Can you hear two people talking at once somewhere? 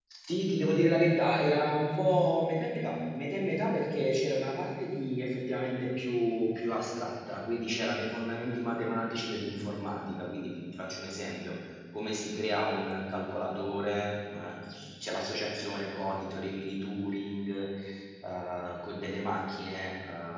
No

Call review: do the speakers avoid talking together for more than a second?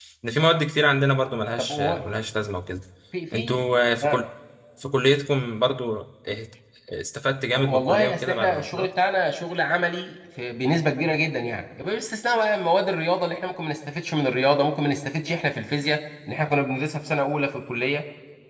No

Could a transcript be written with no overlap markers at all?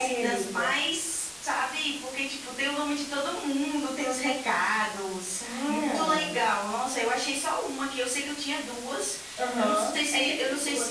No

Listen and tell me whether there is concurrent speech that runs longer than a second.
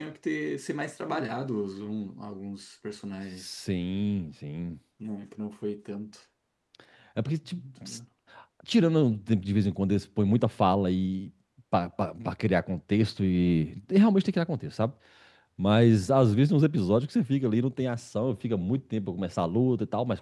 No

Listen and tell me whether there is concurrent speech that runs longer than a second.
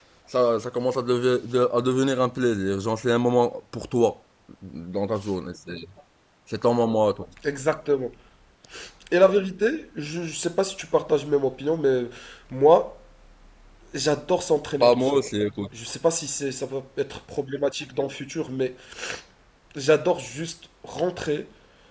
No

